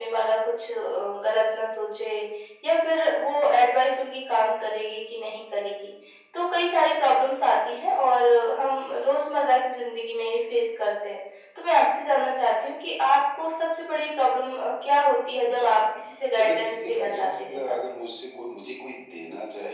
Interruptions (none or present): present